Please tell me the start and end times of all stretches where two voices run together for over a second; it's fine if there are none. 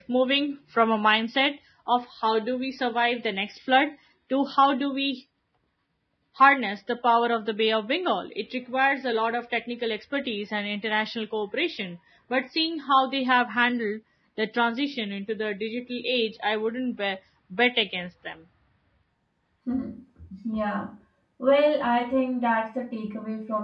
none

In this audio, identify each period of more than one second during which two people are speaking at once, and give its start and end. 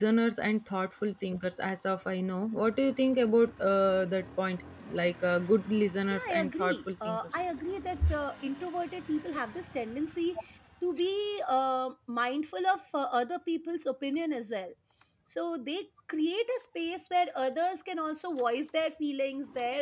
6.1-7.4

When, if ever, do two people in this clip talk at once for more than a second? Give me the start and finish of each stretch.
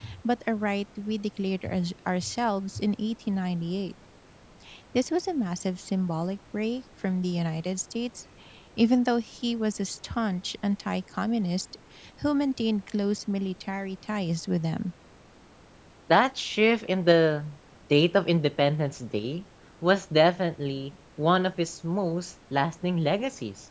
none

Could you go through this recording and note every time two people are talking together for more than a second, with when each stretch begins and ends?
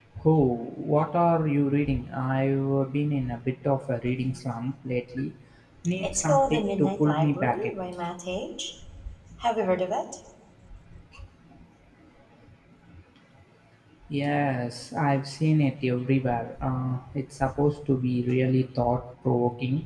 6.0-7.7

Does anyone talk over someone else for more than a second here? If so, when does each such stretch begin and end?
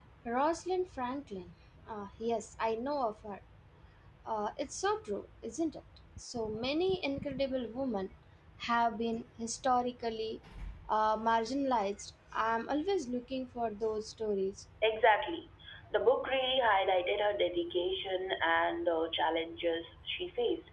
none

